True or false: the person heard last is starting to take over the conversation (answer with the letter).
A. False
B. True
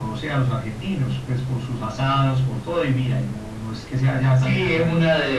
B